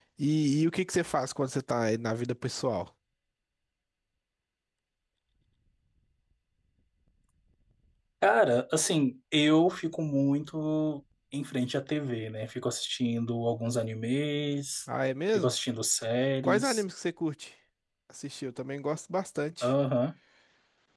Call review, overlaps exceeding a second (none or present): none